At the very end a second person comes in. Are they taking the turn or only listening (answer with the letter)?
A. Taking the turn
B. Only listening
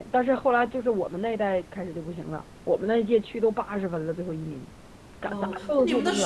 A